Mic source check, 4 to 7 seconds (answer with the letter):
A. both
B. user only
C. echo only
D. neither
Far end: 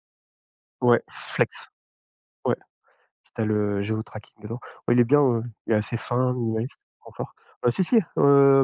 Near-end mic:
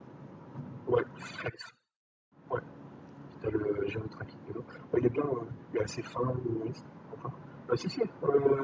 C